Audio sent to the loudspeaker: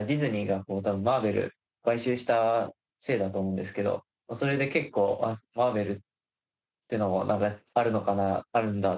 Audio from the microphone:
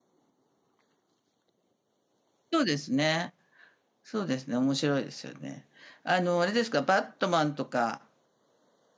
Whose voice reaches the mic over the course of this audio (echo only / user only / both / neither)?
user only